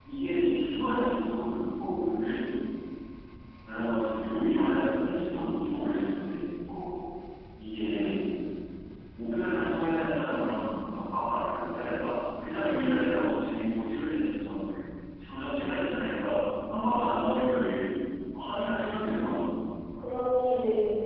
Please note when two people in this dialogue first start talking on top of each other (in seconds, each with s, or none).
none